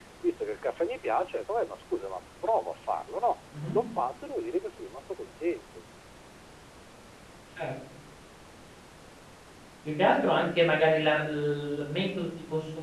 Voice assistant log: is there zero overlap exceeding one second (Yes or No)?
Yes